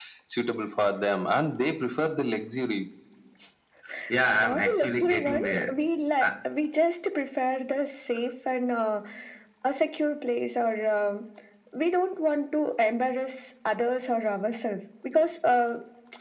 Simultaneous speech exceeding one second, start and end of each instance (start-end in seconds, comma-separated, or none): 4.2-5.7